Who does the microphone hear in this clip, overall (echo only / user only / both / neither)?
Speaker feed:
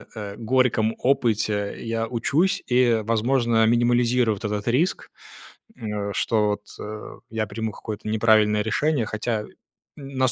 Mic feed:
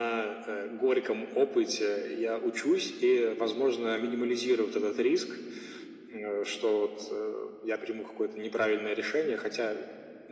echo only